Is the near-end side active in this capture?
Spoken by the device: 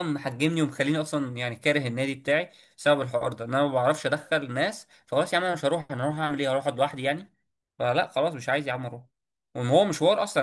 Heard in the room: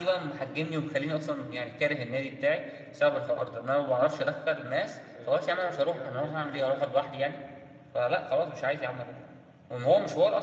Yes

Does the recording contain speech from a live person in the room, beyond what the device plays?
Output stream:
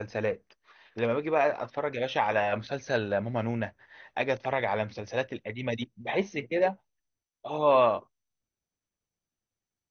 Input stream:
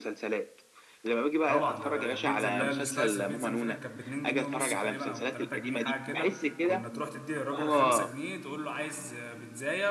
Yes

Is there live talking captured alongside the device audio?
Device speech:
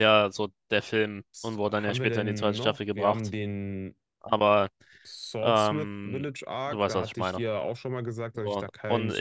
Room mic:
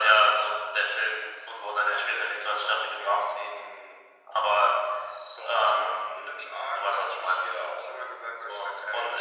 No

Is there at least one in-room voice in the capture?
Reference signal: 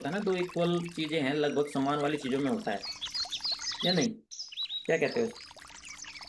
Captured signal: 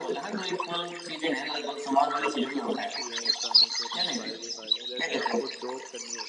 Yes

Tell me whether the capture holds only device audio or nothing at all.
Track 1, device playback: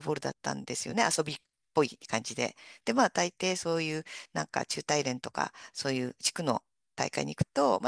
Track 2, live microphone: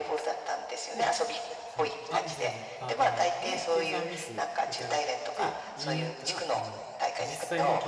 No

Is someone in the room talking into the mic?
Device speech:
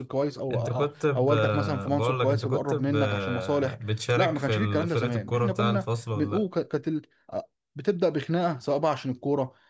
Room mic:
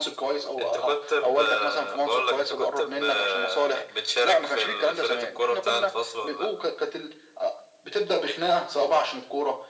No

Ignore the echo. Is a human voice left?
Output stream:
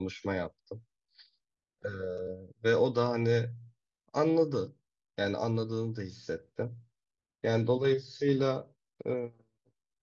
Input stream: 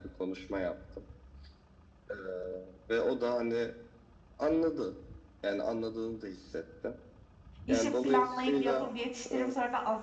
Yes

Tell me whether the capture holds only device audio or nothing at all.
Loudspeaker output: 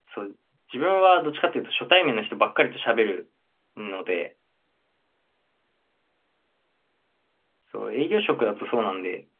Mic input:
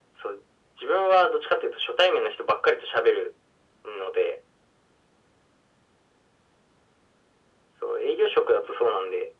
Yes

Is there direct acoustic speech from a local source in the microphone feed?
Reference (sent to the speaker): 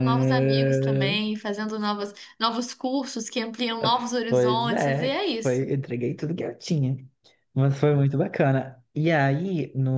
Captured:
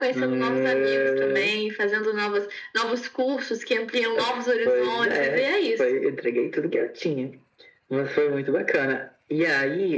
No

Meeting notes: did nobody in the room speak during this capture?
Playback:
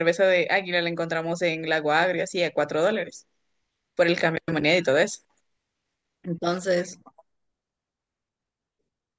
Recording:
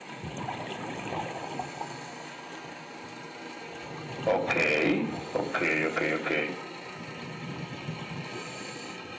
No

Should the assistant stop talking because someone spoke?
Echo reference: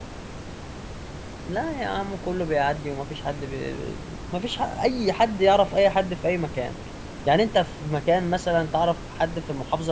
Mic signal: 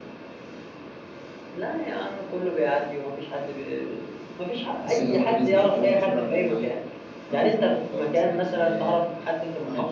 Yes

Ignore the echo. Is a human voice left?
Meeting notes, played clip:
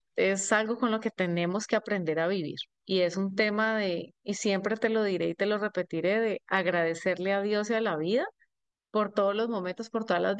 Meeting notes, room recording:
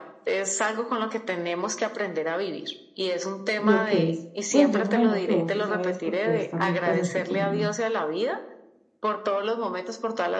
Yes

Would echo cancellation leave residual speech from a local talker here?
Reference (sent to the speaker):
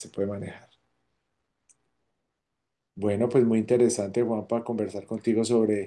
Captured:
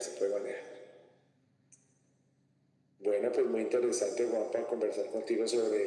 No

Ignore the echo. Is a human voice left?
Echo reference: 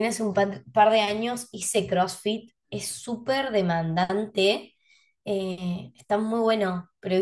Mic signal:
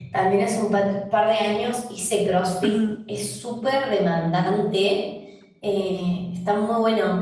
Yes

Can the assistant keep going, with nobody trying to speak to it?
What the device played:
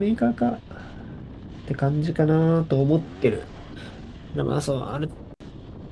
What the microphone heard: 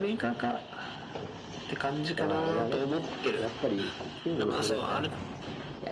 No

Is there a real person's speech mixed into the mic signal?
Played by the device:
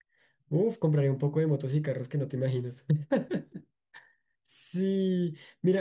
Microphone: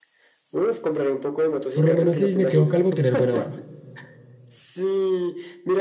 Yes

